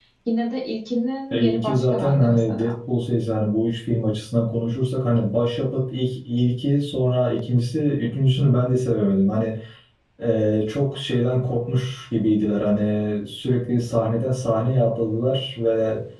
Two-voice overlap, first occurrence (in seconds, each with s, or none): 1.3 s